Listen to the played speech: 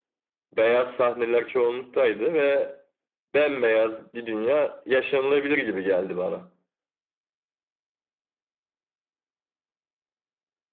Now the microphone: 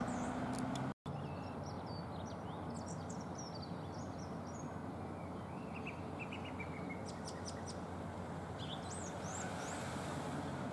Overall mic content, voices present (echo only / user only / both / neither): neither